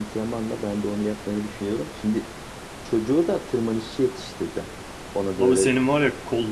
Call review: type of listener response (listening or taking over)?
taking over